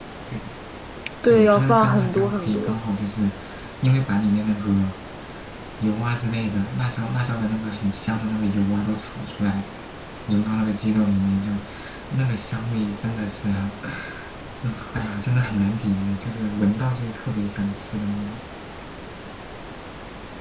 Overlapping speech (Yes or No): Yes